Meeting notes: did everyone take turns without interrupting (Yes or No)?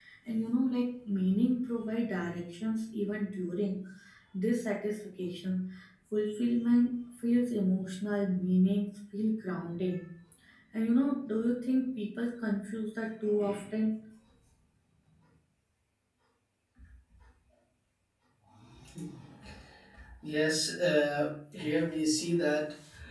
Yes